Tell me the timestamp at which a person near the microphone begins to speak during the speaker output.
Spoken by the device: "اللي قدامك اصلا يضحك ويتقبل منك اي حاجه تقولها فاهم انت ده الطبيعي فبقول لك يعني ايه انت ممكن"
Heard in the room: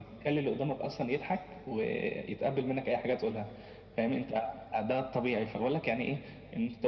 none

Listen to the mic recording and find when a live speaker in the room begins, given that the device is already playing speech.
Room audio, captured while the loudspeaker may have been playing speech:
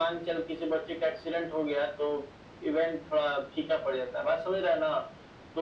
none

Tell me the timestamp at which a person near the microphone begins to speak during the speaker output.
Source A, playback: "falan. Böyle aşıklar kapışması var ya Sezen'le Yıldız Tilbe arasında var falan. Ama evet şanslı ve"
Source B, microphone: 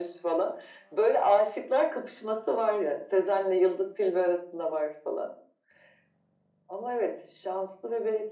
none

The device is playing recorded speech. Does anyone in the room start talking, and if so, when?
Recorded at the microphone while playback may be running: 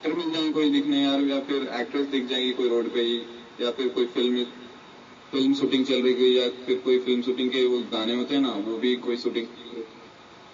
none

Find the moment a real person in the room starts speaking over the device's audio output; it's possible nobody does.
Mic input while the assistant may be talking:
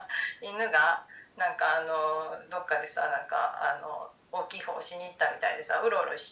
none

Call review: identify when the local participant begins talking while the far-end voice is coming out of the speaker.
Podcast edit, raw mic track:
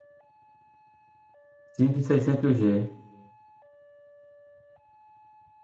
1.7 s

